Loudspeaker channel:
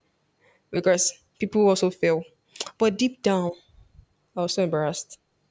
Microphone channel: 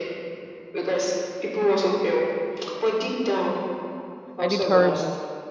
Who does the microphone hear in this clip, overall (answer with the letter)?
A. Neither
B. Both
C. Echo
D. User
B